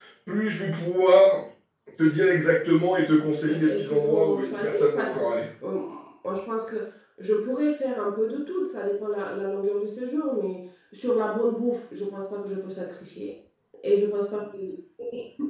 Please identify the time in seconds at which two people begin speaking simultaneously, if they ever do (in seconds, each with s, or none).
3.4 s